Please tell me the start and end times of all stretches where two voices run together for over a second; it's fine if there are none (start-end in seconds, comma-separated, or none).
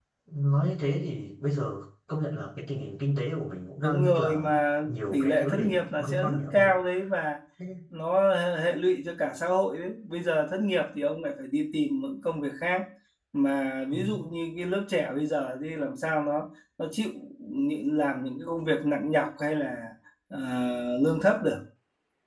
3.8-6.7